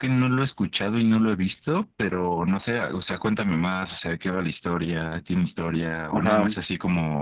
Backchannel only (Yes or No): Yes